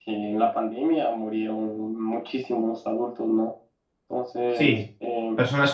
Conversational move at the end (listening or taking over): taking over